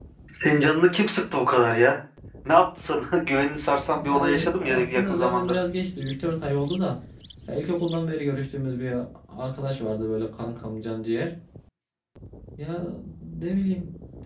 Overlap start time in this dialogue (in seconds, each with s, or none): 4.0 s